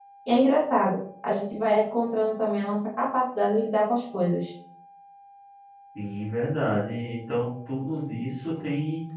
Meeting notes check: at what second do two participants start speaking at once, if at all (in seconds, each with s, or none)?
none